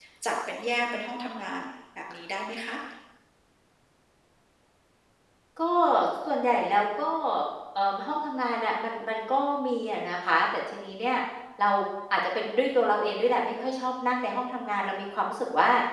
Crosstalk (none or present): none